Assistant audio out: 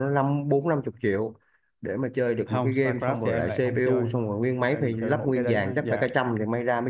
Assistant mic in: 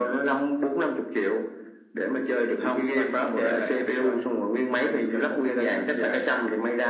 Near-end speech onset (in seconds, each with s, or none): none